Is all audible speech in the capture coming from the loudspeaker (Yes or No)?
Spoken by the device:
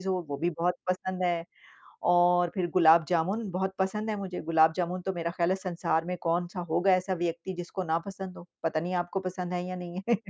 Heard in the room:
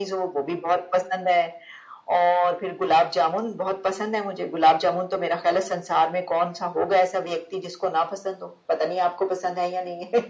Yes